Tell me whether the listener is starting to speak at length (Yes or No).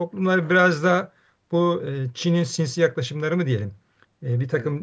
No